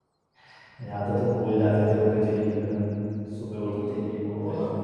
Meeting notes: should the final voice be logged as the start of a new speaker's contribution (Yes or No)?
Yes